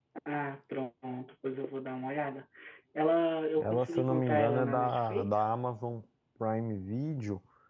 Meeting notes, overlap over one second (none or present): present